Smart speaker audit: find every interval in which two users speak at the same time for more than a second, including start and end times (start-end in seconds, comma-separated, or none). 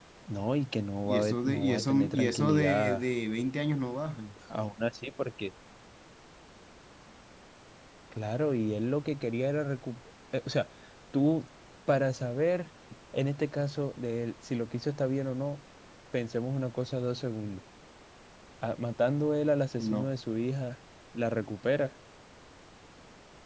1.1-3.0